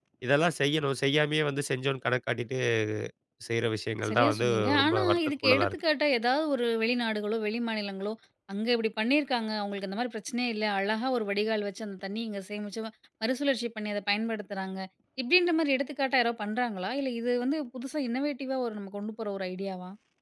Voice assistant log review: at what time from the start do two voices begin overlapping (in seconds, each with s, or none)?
4.1 s